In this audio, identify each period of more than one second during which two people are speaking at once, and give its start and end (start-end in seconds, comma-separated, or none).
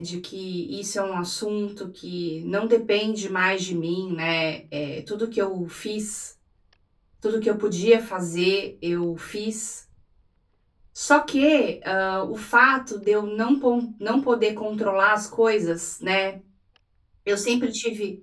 none